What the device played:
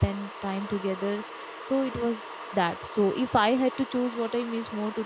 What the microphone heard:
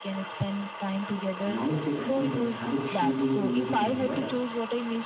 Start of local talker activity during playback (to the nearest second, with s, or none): 1 s